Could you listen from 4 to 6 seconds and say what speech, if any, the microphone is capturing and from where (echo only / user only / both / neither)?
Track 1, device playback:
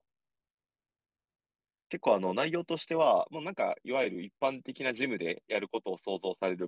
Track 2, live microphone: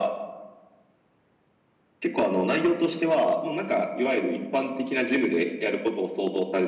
echo only